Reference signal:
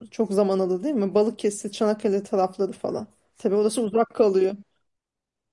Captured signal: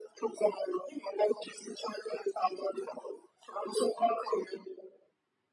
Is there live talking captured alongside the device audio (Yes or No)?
No